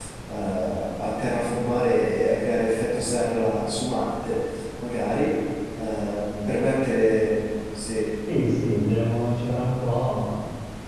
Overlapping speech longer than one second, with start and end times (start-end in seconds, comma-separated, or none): none